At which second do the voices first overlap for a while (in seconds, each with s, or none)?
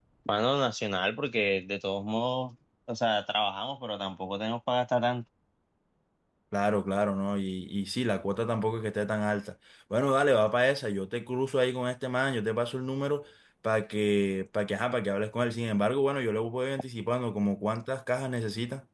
none